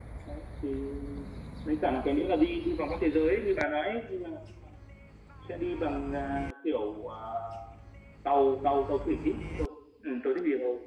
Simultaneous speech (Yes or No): No